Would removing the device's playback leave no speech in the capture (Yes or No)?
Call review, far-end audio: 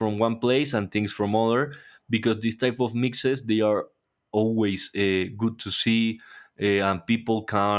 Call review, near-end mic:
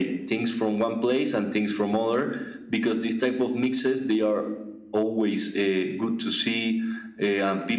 Yes